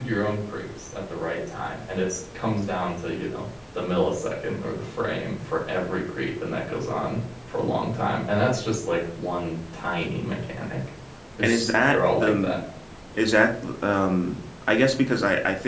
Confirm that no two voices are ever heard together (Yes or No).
No